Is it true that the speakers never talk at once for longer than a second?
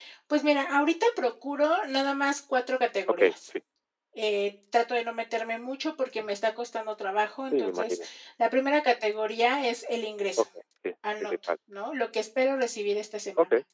Yes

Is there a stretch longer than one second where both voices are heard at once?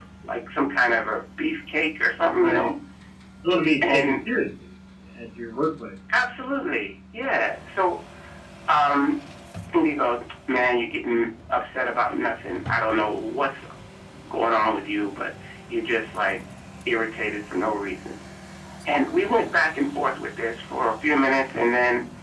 No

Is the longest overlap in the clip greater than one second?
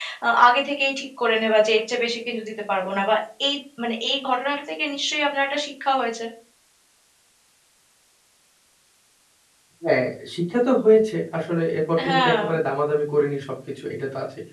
No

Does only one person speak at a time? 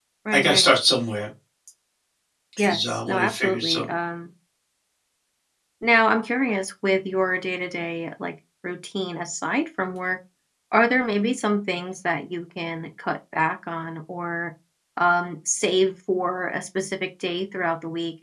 No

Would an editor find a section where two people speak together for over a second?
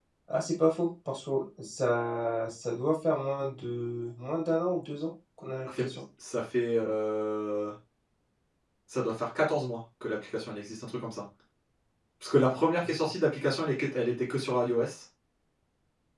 No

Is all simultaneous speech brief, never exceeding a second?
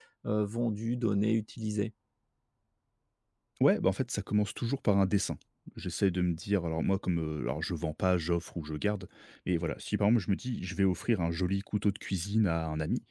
Yes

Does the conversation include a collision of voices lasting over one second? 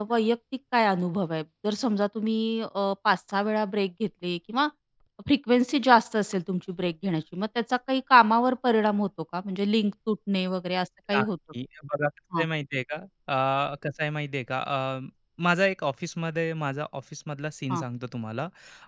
No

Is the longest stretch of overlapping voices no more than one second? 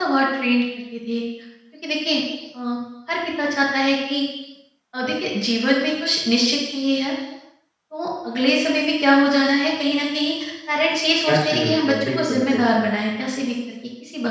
No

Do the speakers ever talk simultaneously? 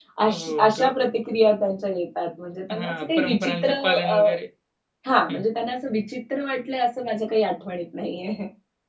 Yes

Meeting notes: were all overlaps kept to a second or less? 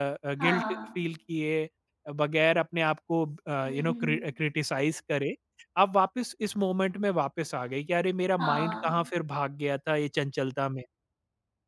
Yes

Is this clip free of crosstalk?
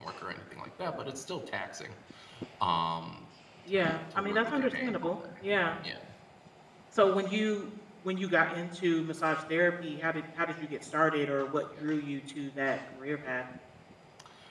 No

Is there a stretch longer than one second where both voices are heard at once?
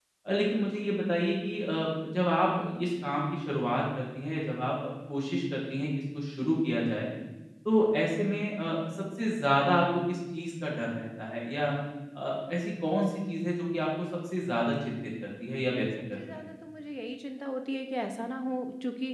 No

